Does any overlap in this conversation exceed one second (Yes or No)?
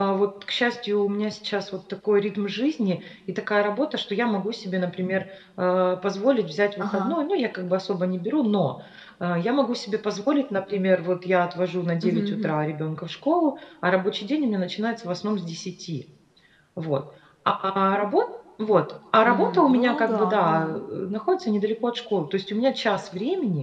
Yes